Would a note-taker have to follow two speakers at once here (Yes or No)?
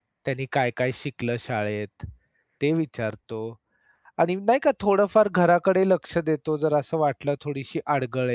No